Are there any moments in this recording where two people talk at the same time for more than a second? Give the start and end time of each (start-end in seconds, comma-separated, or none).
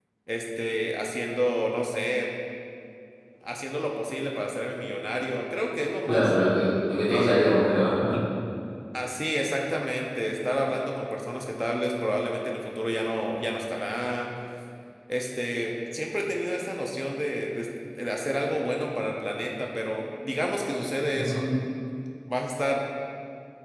none